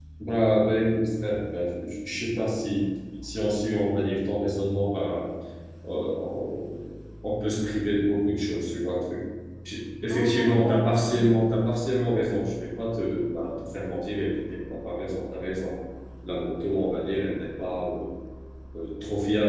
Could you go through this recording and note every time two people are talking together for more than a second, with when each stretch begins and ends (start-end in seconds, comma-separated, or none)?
10.1-11.5